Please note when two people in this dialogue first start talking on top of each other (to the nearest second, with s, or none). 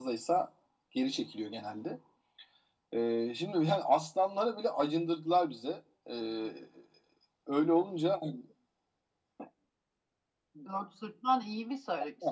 none